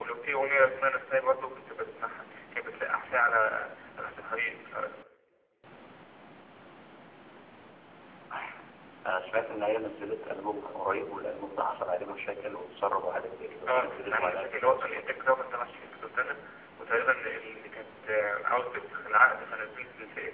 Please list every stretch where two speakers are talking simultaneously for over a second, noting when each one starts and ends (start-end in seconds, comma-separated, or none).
13.7-15.1